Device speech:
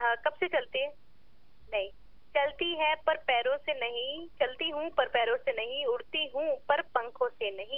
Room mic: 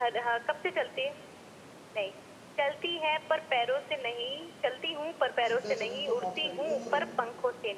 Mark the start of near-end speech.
5.5 s

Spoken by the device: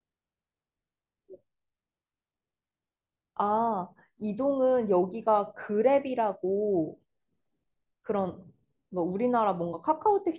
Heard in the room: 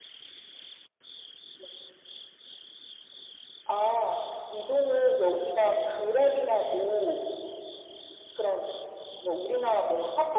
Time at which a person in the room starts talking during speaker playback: none

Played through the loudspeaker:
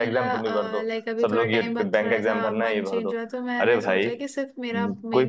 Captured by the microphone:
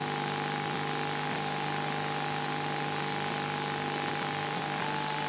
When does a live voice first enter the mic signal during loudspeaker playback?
none

